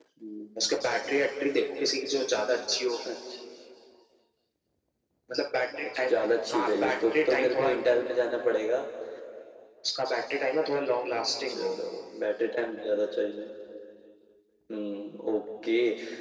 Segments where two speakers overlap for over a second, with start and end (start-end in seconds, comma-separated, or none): 6.5-7.7